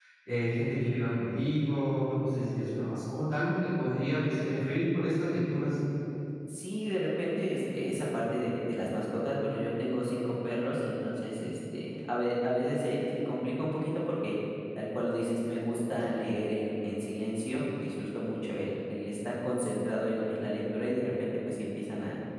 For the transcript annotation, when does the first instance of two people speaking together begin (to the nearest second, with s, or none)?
none